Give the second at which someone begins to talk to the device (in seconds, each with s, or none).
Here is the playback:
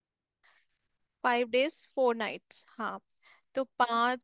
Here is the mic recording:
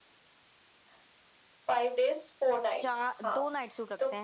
2.8 s